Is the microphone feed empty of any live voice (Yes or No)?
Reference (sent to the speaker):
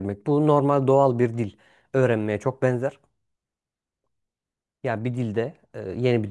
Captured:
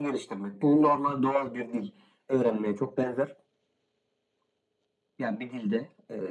Yes